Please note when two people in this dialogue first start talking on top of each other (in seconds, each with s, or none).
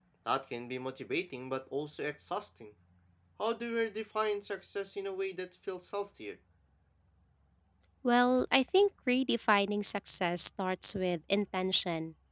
none